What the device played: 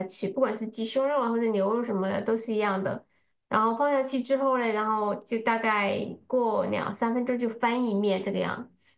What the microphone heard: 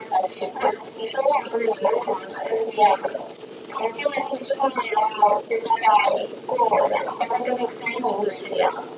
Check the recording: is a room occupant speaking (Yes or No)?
No